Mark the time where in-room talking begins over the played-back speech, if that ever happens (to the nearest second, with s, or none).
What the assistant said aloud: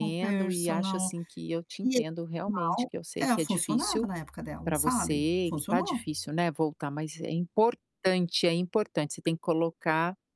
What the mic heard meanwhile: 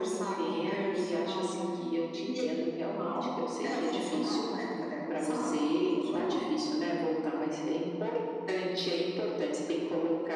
none